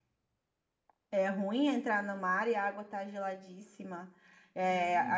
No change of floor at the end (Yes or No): Yes